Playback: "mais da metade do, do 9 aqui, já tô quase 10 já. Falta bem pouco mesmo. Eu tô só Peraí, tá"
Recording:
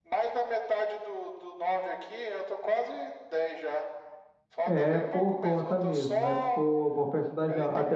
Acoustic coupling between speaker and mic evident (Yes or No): Yes